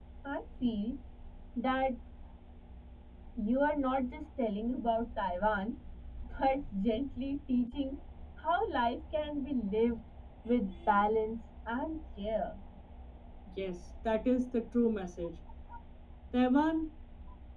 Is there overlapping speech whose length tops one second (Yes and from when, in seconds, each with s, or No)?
No